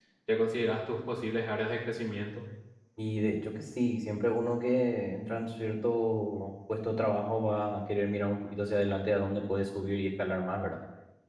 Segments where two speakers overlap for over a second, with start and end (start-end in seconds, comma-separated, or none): none